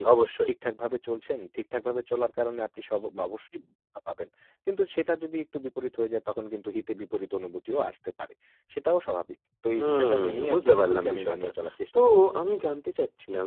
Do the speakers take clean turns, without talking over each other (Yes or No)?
No